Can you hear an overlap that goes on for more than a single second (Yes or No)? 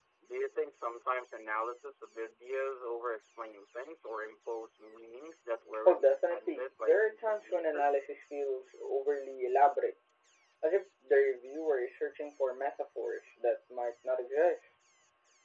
Yes